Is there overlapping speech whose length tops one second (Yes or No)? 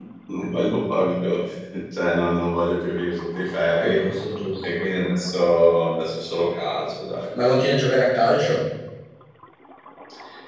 No